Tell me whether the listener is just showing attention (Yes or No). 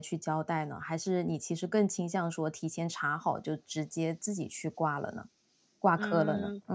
No